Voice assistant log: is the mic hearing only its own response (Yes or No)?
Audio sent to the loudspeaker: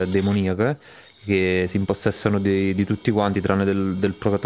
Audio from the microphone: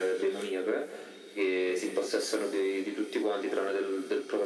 Yes